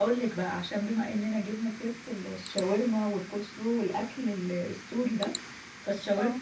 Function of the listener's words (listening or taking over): listening